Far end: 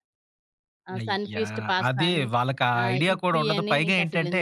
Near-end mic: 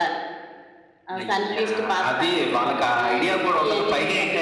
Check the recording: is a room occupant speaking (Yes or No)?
No